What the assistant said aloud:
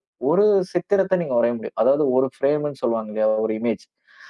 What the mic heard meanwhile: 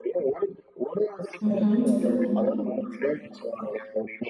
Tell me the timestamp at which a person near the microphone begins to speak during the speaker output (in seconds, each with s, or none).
1.5 s